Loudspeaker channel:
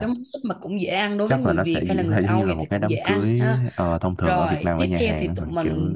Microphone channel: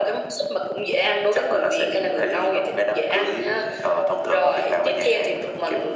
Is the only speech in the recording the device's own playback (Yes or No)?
Yes